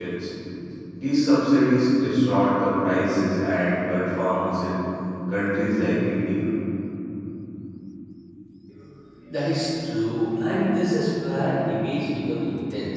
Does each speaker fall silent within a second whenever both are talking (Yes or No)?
Yes